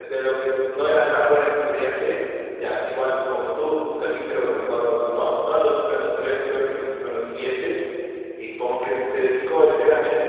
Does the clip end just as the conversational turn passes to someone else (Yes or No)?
No